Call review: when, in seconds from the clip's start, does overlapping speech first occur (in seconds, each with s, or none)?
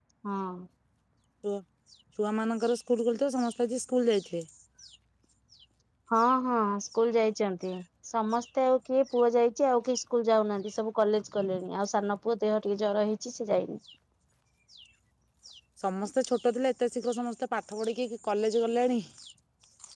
none